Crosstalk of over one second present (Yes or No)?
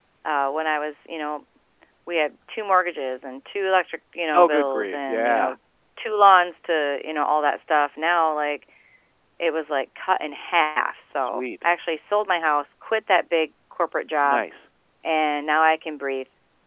Yes